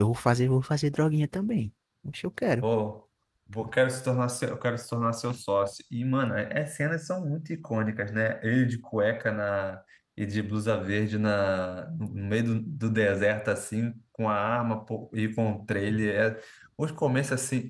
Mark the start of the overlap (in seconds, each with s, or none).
none